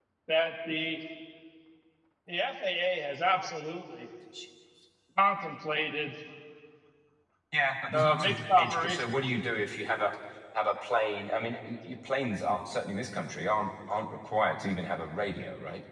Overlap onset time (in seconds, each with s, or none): 7.9 s